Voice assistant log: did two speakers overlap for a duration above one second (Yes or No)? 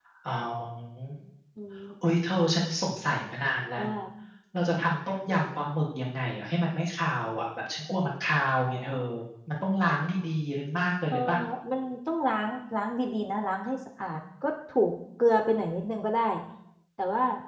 No